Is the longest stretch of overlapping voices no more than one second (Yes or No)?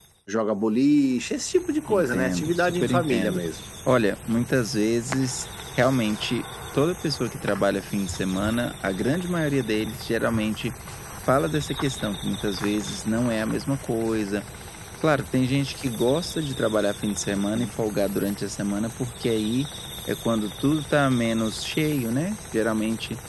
No